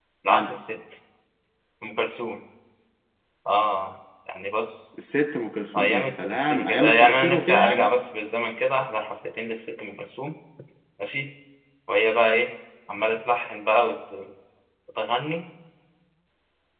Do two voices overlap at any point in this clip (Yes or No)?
Yes